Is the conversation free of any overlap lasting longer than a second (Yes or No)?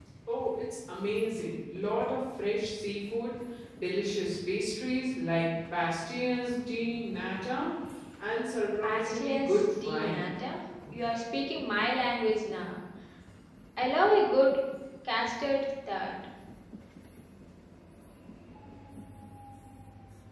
No